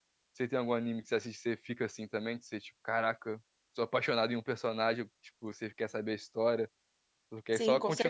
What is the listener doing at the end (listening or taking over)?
taking over